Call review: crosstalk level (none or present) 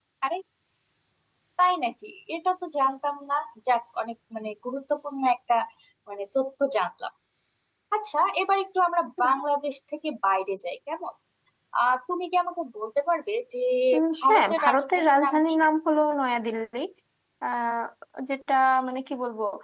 present